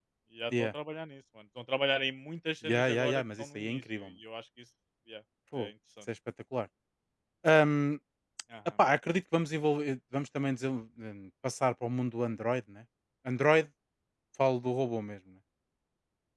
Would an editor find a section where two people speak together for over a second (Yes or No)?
Yes